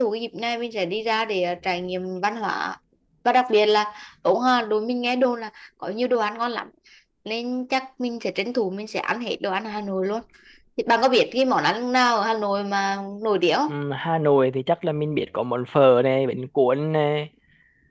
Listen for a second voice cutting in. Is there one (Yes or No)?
No